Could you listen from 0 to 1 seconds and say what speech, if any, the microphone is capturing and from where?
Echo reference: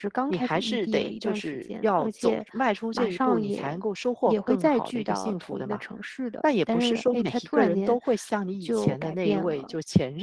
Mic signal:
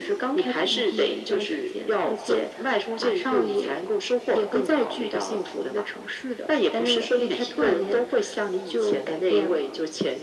echo only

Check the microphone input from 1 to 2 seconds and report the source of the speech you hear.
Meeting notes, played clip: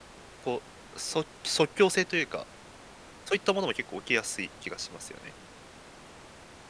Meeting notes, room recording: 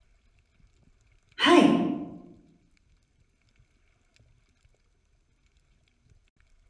user only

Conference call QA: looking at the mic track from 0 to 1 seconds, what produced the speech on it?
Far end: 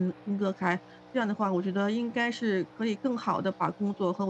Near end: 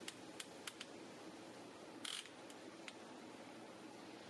neither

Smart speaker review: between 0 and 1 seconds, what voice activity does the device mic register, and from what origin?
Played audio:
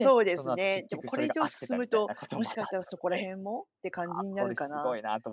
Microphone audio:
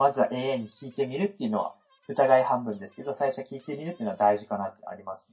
user only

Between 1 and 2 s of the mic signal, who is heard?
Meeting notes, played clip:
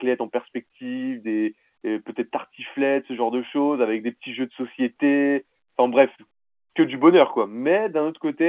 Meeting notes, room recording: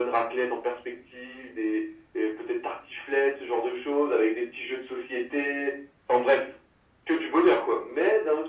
echo only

